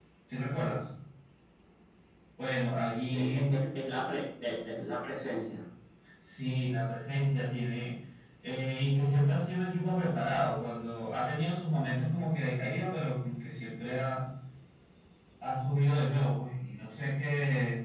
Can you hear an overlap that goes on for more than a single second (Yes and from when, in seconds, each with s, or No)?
No